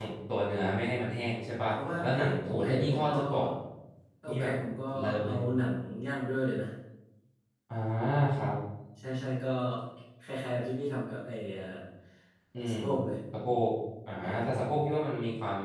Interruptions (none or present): present